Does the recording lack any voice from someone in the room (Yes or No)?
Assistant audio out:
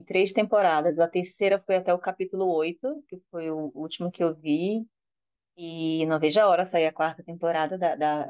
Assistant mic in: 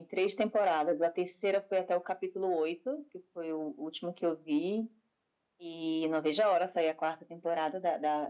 Yes